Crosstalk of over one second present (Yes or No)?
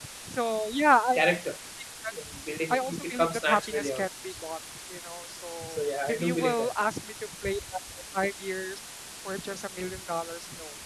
Yes